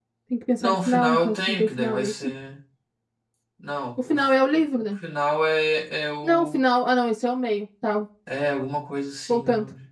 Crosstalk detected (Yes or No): Yes